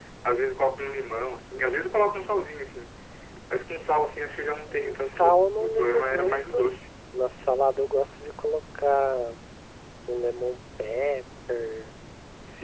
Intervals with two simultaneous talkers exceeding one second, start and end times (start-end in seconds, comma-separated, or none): 4.7-6.7